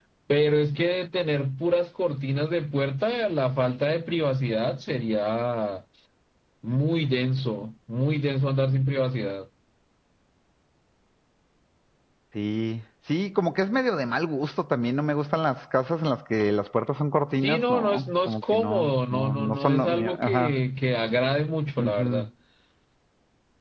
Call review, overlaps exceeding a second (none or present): present